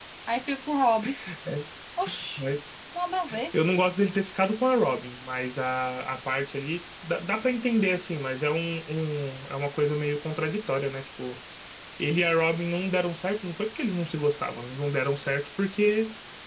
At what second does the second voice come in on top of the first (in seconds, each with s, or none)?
none